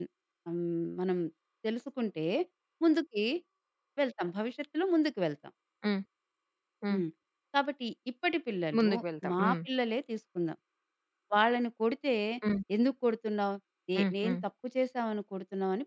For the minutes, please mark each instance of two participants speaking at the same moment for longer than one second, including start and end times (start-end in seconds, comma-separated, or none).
none